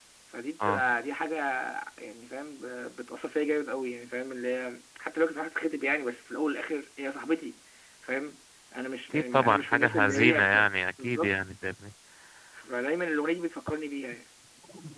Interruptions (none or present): present